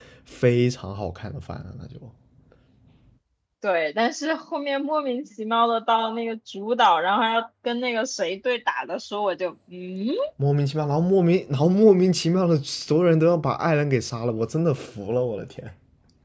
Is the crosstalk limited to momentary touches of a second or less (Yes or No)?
Yes